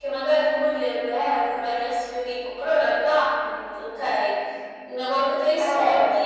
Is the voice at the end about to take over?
No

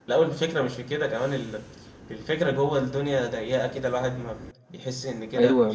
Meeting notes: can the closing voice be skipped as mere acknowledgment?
No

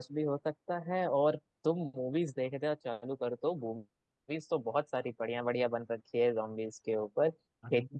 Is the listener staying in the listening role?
Yes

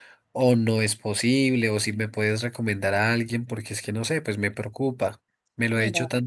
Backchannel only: Yes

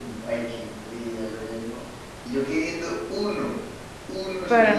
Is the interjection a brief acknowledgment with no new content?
No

